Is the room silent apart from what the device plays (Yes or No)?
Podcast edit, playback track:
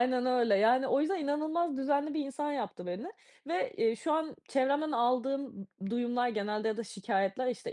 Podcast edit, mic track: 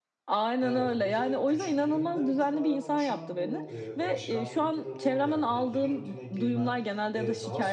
No